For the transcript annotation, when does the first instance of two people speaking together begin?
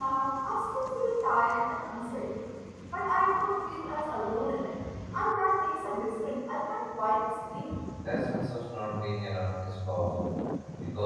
none

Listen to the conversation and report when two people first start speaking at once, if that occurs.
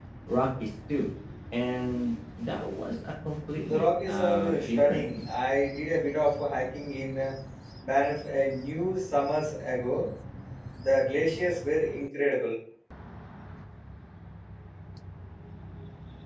3.6 s

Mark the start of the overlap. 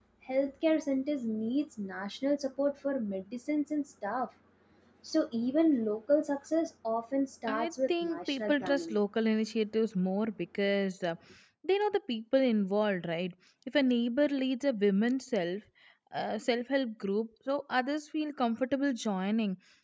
7.5 s

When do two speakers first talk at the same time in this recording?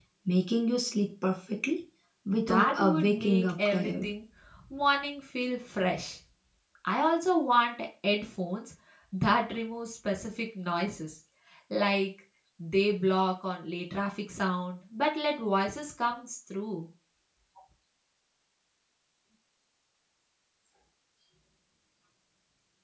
2.5 s

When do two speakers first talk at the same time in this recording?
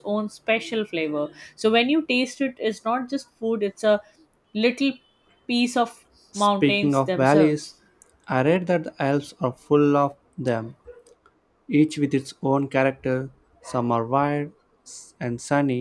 6.4 s

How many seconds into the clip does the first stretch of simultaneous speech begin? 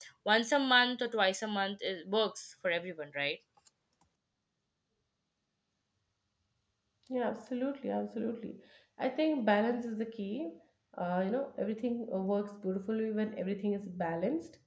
none

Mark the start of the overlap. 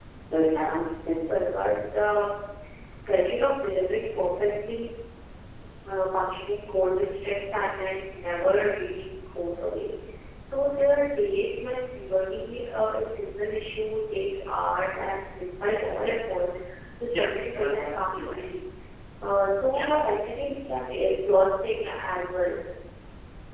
17.0 s

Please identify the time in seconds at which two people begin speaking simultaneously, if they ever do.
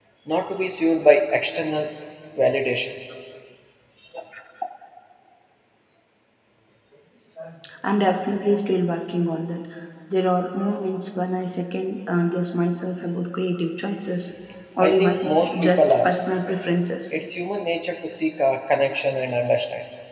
14.8 s

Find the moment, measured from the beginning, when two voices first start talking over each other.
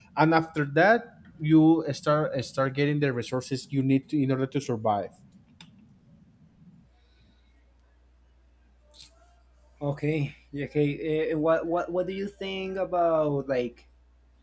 none

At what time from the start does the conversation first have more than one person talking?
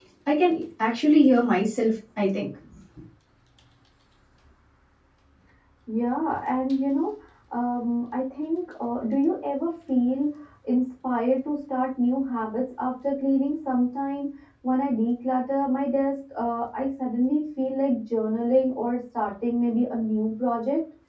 none

